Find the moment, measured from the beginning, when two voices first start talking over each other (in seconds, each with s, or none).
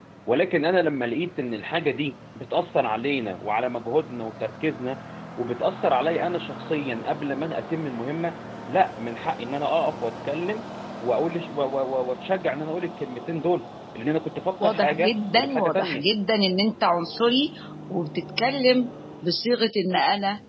14.6 s